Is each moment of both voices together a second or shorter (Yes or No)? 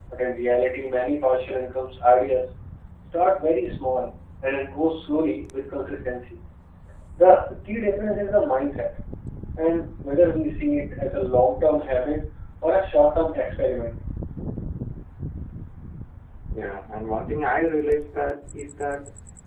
Yes